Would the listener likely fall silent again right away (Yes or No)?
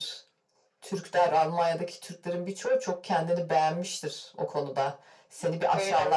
Yes